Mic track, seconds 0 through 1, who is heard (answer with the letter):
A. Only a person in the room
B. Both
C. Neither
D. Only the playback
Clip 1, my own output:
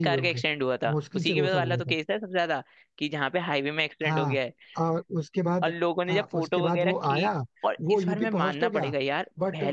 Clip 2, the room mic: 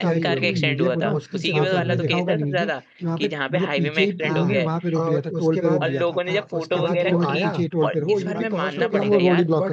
B